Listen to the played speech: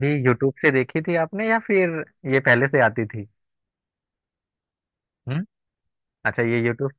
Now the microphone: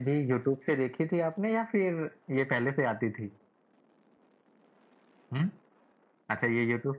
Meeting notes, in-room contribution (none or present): none